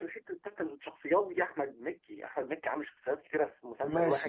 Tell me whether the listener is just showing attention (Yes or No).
No